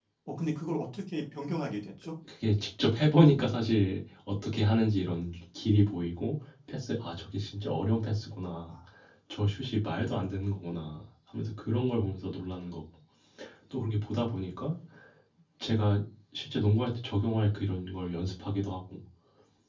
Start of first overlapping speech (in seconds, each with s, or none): none